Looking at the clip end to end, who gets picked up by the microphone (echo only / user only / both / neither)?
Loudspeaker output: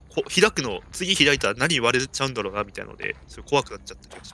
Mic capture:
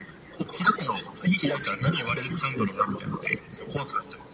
echo only